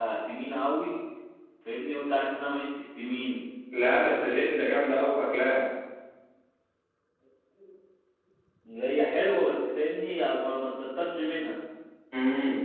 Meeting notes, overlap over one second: none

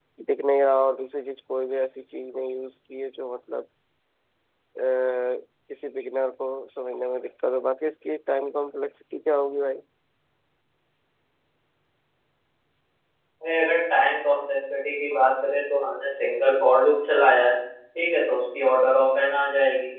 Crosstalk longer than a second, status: none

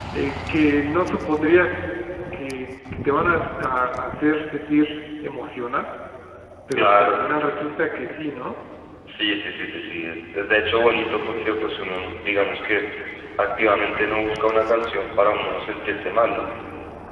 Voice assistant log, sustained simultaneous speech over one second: none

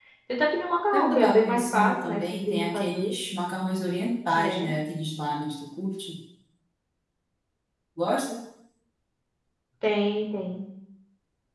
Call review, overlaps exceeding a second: present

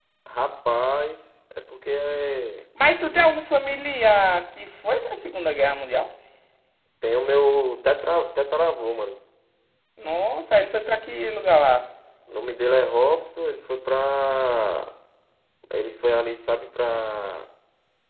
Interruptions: none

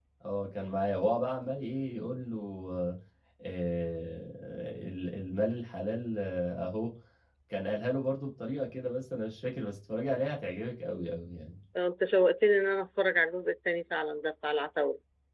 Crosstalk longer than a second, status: none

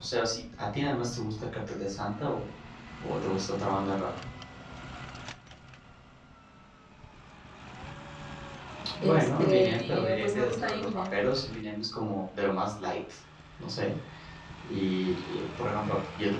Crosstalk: present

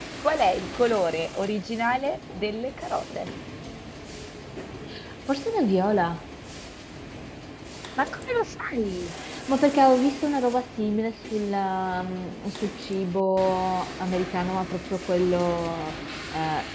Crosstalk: none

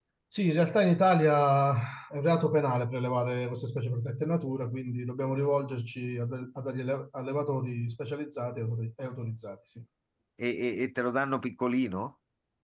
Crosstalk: none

